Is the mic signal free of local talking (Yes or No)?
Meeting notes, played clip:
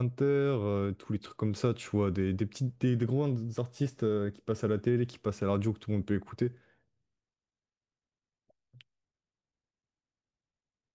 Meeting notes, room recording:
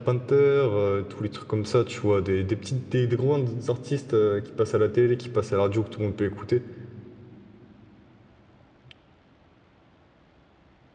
Yes